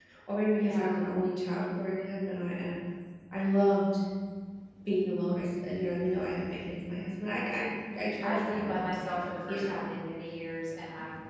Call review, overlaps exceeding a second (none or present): present